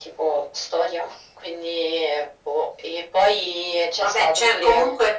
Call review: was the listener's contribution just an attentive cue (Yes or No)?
No